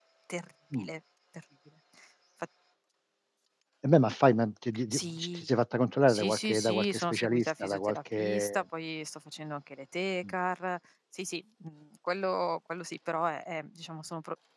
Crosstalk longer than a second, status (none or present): present